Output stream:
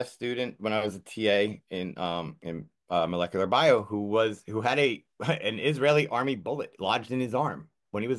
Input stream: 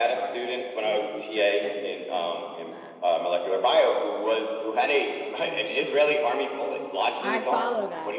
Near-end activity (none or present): present